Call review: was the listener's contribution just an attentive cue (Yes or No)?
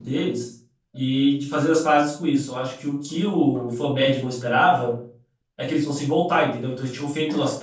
Yes